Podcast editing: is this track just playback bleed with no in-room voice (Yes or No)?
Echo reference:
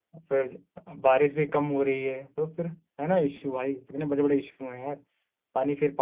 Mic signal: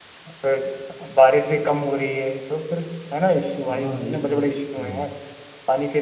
No